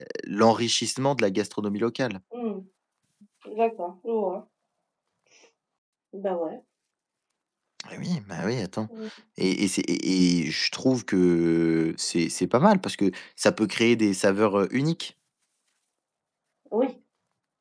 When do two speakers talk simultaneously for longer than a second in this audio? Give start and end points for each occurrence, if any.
none

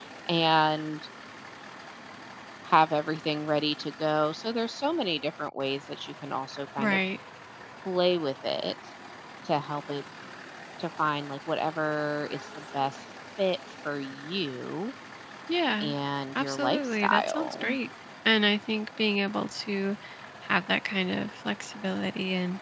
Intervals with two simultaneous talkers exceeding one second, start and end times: 16.4-17.7

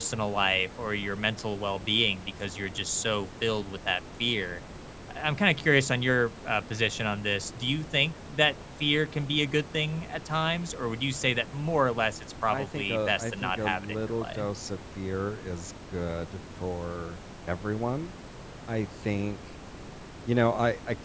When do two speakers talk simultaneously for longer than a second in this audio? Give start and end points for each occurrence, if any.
12.5-14.5

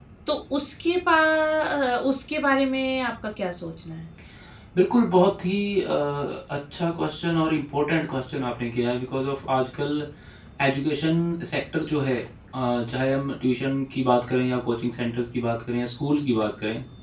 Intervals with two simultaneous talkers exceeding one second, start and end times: none

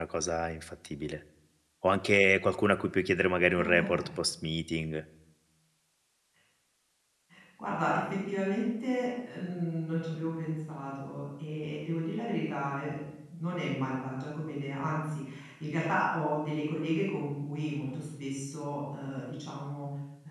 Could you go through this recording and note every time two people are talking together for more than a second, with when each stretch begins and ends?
none

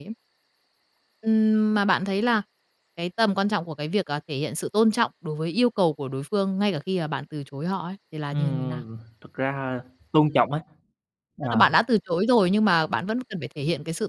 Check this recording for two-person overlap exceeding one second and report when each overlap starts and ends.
none

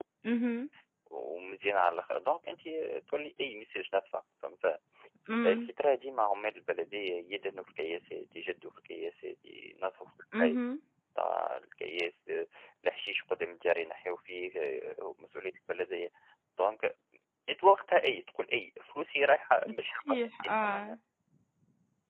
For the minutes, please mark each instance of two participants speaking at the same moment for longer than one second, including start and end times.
19.8-21.0

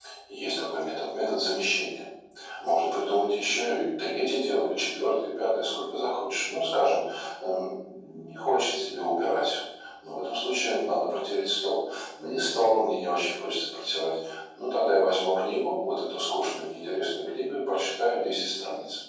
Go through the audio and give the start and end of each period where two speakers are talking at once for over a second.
none

